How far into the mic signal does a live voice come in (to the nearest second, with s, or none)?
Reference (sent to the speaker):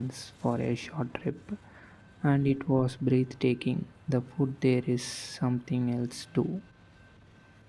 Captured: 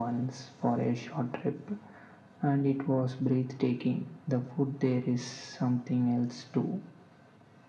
none